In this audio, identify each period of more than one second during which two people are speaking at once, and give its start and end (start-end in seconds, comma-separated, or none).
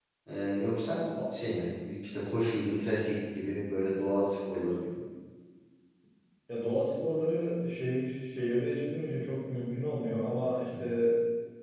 none